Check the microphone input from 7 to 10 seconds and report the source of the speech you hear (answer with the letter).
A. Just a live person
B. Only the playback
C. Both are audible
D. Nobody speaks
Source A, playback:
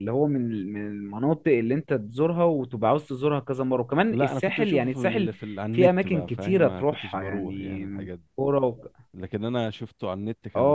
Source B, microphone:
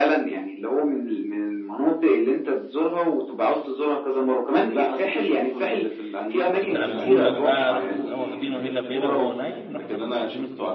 C